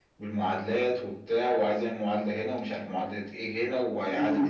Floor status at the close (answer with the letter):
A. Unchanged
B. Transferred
B